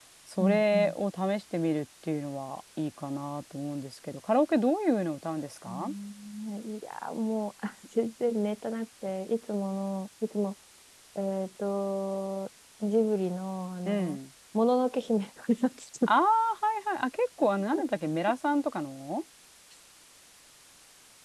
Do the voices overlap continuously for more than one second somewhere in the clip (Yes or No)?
No